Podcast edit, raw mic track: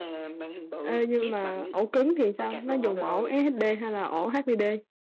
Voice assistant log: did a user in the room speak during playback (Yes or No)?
Yes